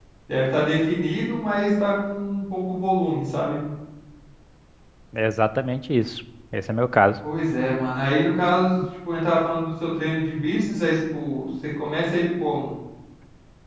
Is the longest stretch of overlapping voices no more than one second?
Yes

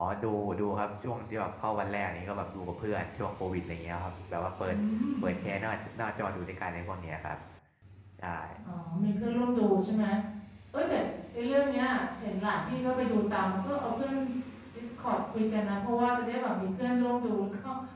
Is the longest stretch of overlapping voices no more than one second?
Yes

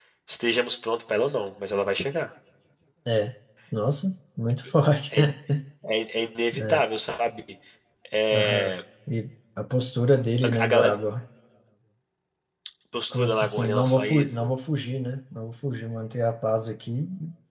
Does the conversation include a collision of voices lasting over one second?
Yes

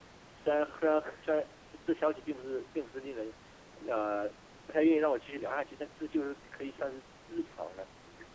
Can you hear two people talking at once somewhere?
No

